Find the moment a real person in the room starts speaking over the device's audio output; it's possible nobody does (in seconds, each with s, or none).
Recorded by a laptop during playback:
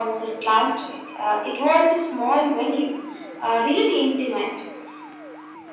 none